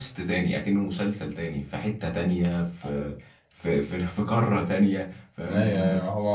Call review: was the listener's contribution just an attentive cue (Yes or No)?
No